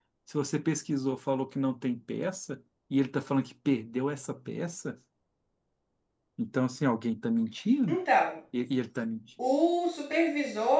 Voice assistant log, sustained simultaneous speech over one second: none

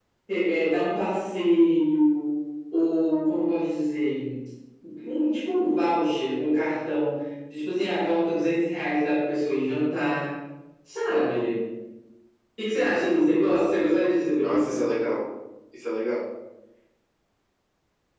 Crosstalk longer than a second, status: none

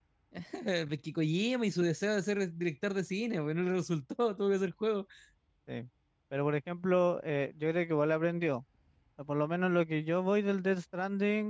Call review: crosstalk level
none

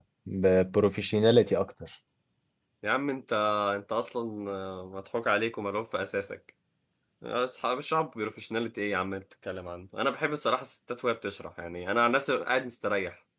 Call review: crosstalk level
none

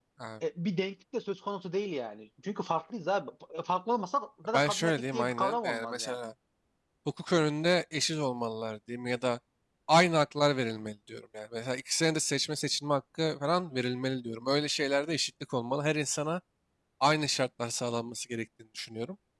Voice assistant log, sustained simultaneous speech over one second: present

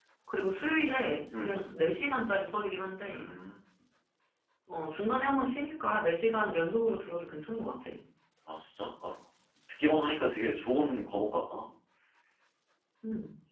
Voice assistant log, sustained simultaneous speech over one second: none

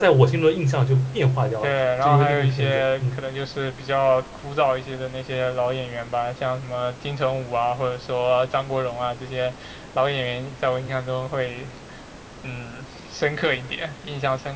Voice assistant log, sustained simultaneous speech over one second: present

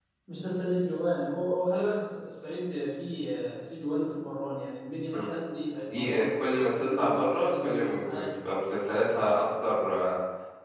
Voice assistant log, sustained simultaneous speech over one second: present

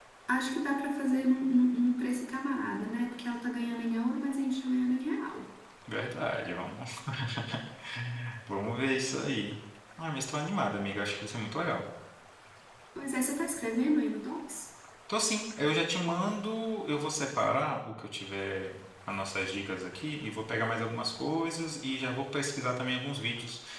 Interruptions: none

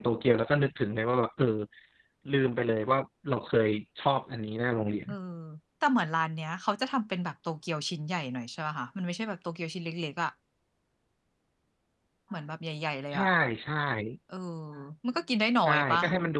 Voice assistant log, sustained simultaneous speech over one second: none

